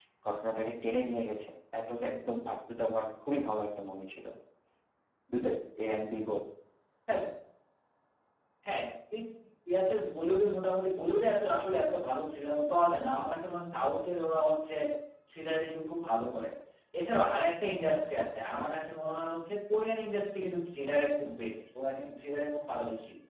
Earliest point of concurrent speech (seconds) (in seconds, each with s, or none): none